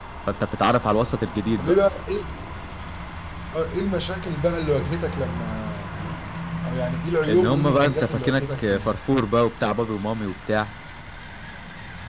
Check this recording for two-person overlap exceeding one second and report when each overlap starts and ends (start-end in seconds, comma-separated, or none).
7.3-8.9